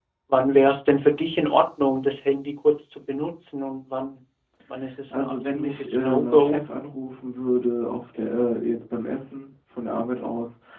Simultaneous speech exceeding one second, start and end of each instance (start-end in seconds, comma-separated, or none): 5.1-6.6